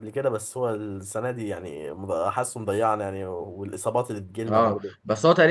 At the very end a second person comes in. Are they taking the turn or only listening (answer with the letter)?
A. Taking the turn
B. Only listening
A